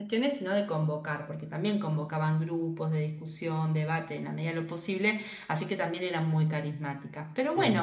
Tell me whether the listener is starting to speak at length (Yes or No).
No